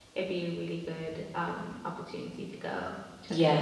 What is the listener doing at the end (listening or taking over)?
taking over